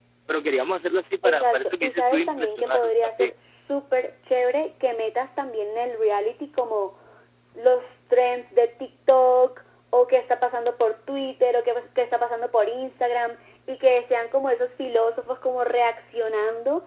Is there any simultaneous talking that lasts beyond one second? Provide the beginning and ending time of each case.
1.2-3.3

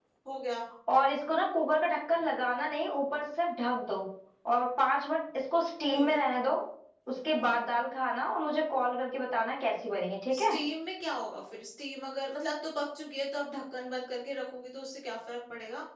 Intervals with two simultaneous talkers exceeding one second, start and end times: none

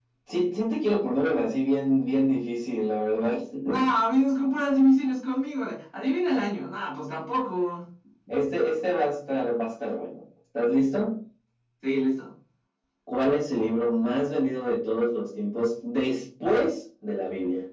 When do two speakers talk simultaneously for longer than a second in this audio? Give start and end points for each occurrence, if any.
none

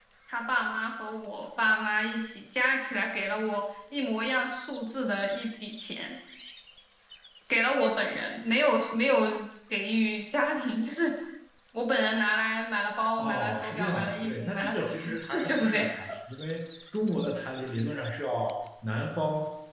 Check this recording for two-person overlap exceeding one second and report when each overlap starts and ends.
13.2-15.9

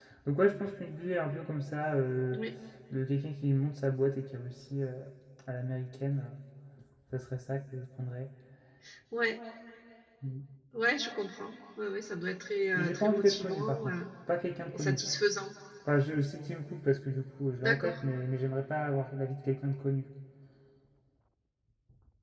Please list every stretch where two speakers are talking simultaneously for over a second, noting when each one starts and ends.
12.7-13.9

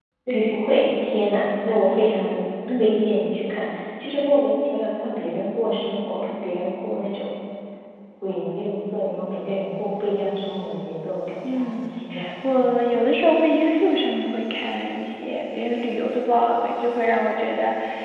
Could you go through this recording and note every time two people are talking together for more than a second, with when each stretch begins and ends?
none

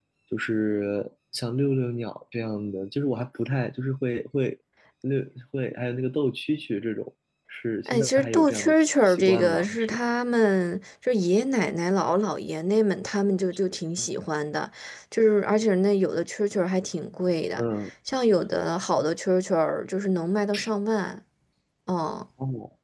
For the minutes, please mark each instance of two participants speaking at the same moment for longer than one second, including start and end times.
7.9-10.0

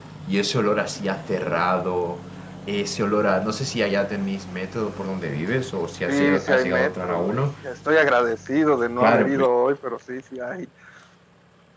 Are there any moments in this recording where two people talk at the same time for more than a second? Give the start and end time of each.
6.1-7.4

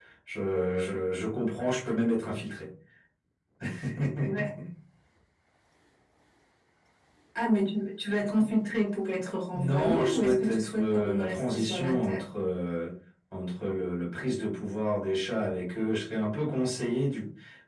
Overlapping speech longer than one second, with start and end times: 9.5-12.2

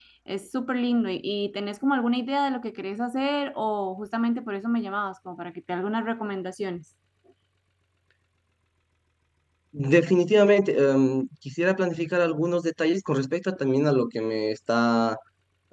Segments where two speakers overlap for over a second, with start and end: none

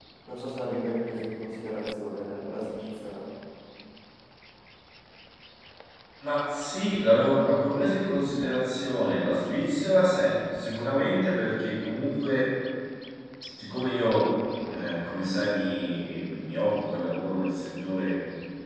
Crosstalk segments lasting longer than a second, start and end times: none

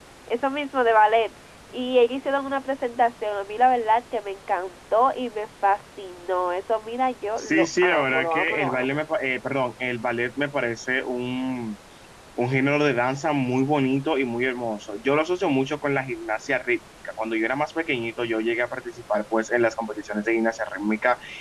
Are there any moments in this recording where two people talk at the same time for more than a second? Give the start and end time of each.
7.4-8.8

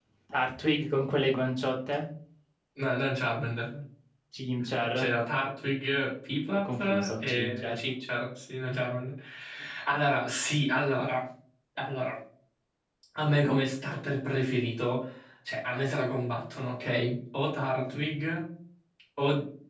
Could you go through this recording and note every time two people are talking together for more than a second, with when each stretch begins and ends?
6.5-7.8

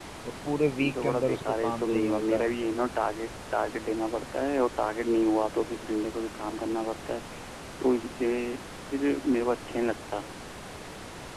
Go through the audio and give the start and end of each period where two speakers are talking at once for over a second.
0.8-2.5

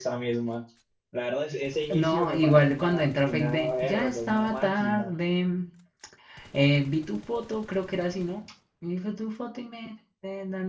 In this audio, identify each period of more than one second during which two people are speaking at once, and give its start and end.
1.9-5.1

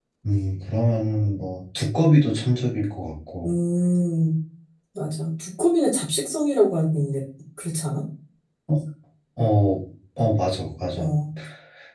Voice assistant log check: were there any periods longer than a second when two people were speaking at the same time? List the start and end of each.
none

